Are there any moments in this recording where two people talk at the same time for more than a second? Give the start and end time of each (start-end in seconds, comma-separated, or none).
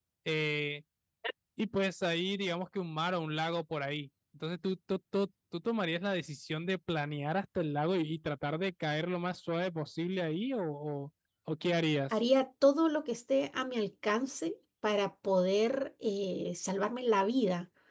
none